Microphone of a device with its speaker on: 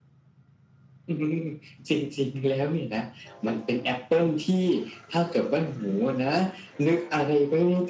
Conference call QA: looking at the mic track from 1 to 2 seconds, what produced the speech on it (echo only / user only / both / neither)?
echo only